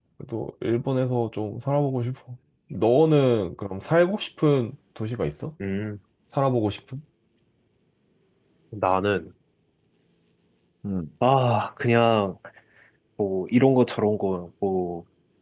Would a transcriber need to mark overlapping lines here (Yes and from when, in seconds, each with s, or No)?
No